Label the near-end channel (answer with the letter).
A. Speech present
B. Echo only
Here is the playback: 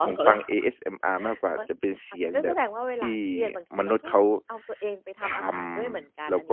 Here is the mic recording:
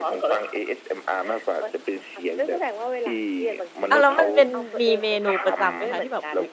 A